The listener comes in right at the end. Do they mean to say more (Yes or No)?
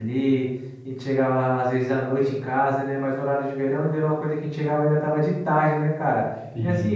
No